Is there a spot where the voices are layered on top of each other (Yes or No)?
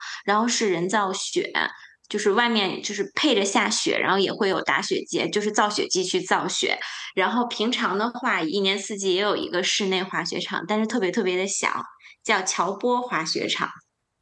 No